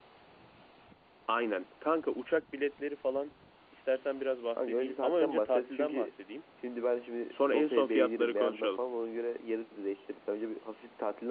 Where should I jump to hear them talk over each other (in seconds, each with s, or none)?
4.6 s